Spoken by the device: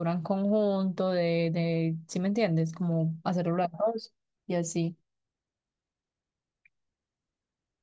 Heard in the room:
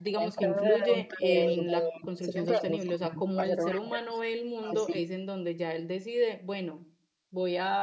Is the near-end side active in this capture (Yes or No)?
Yes